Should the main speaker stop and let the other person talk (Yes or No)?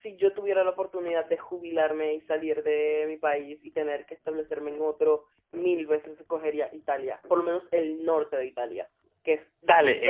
Yes